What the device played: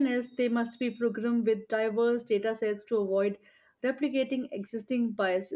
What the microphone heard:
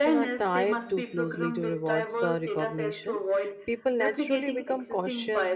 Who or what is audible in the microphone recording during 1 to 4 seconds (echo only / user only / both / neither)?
both